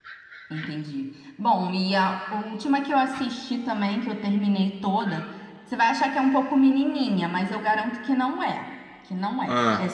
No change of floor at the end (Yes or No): Yes